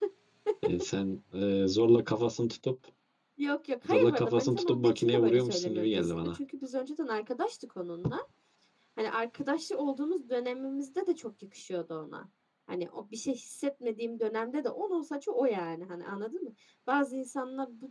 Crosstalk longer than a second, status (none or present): present